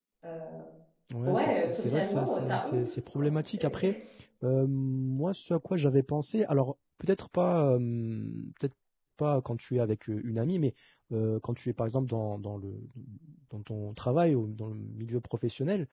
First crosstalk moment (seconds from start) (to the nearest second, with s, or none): 1 s